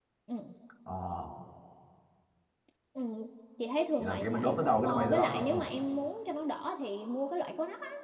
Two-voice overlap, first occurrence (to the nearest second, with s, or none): 4 s